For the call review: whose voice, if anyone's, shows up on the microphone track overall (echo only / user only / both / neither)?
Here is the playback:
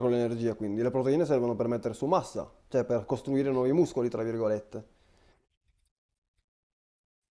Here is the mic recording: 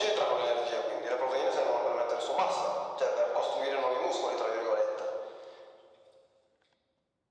echo only